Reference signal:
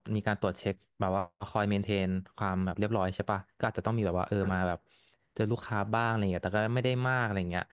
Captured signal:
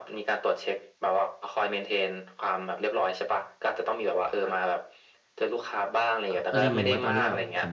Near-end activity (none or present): present